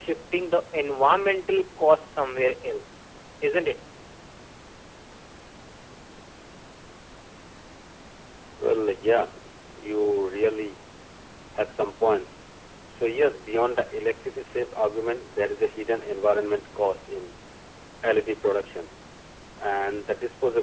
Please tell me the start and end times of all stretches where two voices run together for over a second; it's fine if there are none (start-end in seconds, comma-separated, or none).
none